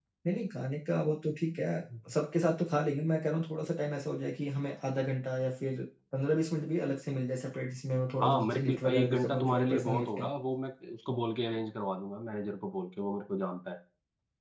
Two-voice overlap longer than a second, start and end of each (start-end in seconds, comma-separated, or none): 8.2-10.3